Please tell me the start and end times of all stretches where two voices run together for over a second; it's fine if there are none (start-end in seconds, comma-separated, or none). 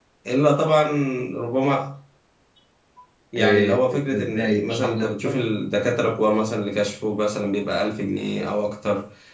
3.4-5.4